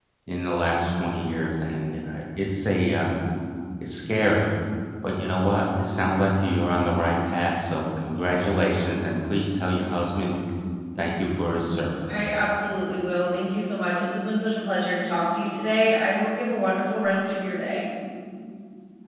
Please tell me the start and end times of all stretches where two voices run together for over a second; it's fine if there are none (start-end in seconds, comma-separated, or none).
none